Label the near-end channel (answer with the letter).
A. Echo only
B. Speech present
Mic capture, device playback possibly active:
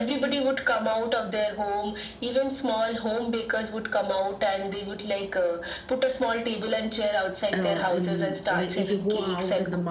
B